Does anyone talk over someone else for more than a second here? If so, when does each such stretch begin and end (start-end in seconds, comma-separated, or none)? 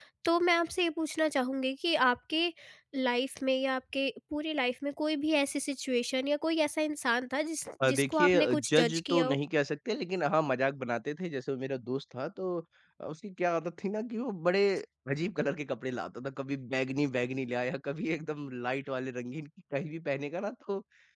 7.8-9.4